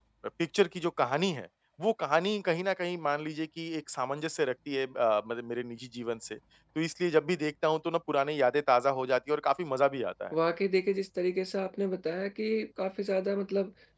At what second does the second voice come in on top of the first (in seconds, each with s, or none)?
none